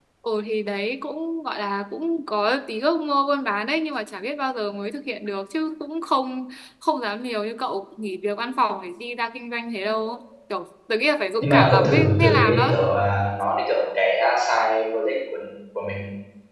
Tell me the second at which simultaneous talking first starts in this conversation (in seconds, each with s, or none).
11.4 s